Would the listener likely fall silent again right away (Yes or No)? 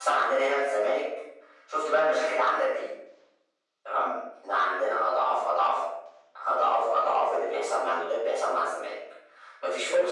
No